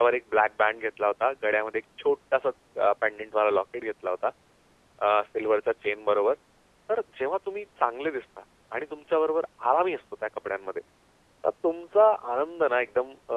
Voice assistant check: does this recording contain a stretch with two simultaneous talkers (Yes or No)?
No